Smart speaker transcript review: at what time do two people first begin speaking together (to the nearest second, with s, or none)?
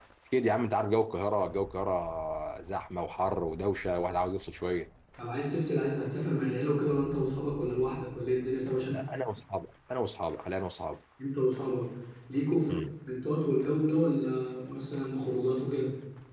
none